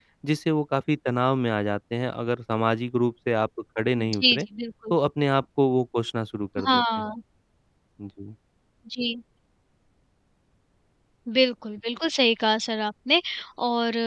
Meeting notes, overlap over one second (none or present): none